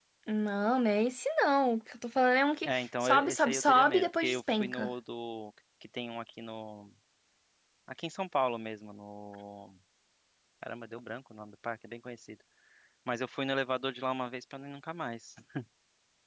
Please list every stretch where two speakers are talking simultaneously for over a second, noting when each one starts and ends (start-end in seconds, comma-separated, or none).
2.6-4.9